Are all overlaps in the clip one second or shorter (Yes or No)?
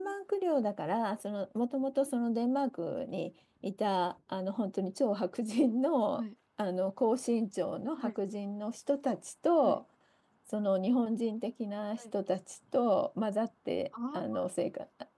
Yes